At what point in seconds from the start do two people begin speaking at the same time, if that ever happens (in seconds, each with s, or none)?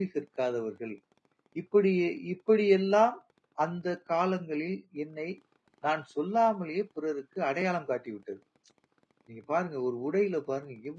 none